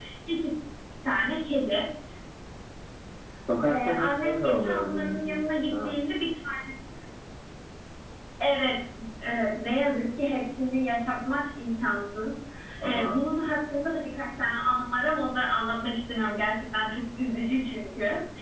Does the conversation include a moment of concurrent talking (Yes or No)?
Yes